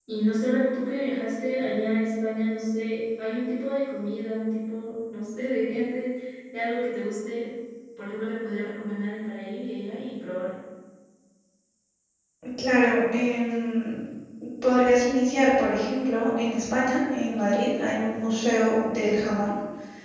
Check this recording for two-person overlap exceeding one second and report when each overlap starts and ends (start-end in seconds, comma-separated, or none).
none